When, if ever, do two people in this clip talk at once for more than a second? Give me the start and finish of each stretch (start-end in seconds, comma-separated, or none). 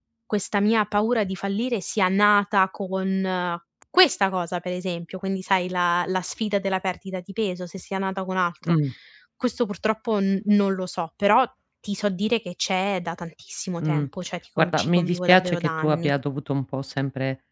14.6-16.1